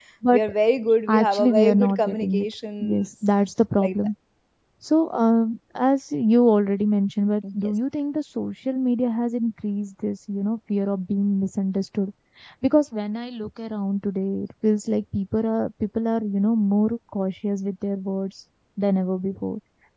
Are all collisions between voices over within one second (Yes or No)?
No